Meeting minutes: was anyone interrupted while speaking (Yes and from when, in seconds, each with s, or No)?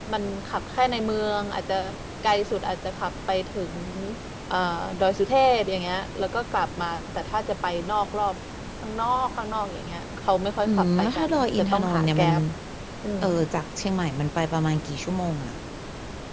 Yes, from 10.6 s